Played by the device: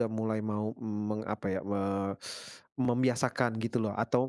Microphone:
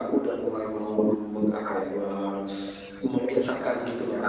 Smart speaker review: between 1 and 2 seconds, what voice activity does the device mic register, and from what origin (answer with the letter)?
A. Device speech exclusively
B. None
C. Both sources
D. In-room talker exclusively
A